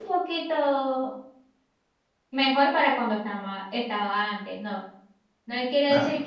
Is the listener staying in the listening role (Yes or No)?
Yes